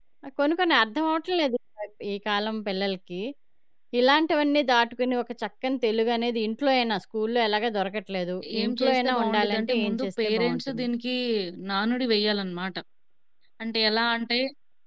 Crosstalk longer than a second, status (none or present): present